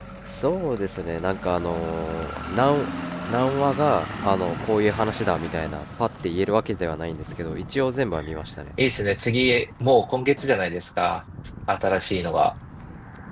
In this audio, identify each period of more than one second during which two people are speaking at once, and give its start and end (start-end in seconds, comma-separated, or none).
none